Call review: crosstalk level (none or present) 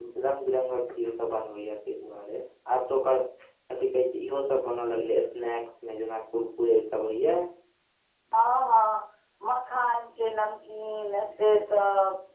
none